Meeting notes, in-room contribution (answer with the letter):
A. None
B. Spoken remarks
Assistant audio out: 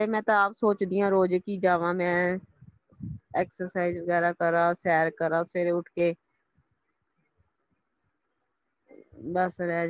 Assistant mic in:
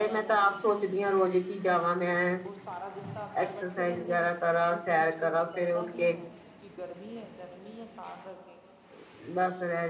B